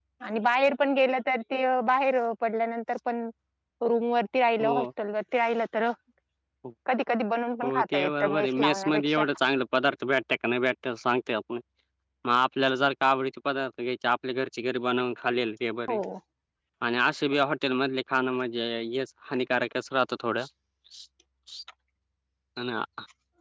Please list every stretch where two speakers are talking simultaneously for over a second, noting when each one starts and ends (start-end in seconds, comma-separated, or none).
7.6-9.0